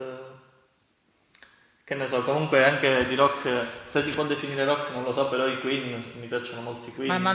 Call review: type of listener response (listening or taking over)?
taking over